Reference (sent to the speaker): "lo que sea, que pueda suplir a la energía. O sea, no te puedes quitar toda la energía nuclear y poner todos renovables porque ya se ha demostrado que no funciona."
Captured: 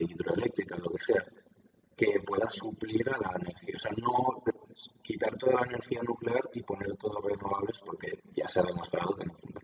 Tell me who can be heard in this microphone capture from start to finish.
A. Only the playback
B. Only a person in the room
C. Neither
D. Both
A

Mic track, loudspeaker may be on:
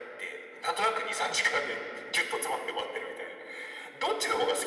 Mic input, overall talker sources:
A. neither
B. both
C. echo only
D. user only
C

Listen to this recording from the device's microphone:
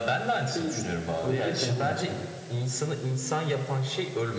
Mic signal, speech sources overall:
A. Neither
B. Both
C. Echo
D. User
B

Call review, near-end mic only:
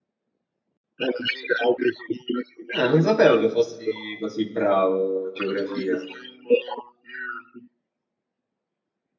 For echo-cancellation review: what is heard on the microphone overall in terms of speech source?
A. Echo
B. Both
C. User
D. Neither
B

